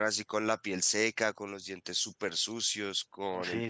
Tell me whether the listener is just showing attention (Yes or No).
No